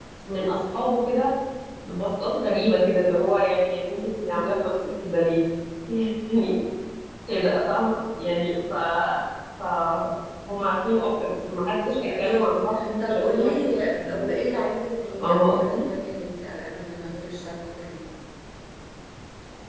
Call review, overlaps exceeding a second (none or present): present